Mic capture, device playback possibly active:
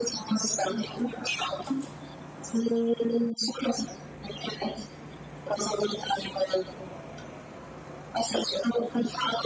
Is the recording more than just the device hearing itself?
No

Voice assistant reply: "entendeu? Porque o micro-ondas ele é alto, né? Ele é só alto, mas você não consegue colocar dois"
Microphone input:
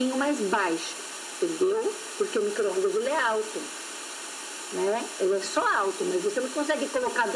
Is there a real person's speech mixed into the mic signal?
No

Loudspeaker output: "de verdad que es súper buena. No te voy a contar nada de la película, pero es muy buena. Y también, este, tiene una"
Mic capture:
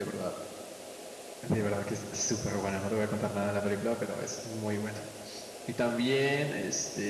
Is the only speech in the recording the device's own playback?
Yes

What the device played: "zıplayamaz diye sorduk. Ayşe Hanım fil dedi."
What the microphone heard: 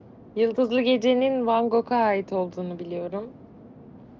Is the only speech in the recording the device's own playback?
No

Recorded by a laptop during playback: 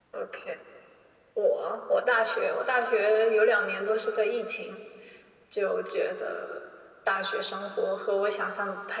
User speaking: No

